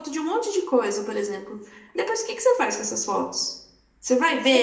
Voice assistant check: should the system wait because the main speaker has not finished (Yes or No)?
No